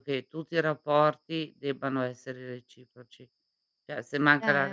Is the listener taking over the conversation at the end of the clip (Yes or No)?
No